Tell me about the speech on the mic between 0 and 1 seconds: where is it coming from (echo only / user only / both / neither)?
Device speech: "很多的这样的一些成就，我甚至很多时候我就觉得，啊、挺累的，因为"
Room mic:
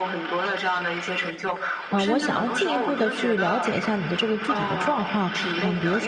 echo only